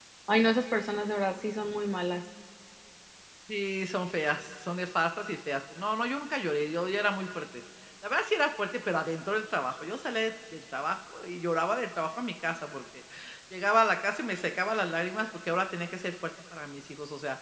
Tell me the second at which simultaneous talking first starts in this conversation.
none

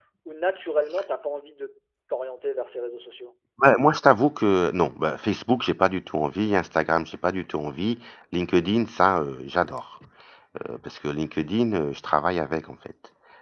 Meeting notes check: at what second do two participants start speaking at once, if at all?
none

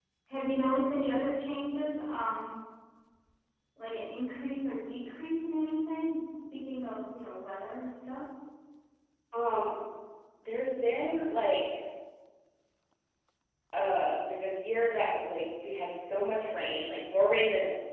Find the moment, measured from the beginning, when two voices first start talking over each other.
none

